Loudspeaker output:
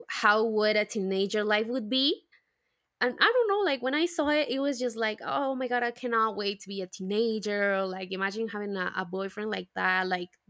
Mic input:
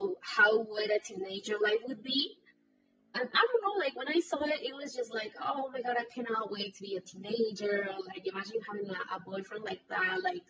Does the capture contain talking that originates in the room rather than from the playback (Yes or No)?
No